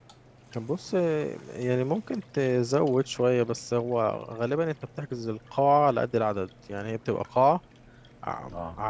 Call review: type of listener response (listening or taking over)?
listening